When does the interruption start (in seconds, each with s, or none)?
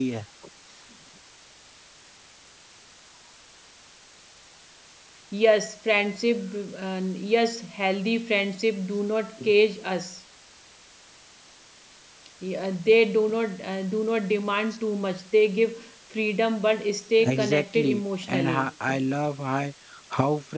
17.2 s